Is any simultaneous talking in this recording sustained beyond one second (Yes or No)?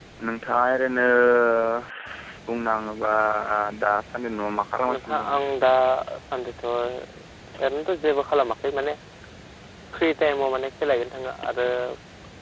No